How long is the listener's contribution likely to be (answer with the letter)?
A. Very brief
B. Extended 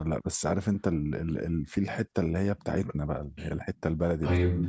B